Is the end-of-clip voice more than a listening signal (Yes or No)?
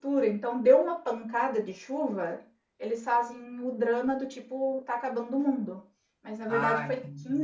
No